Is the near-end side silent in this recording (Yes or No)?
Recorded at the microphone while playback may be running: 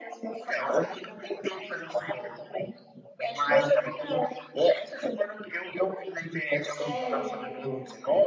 No